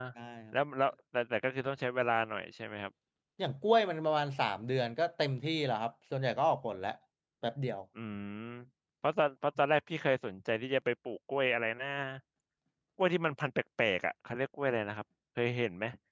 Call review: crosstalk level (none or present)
none